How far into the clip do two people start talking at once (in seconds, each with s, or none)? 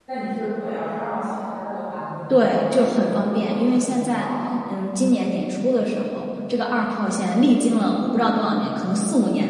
2.3 s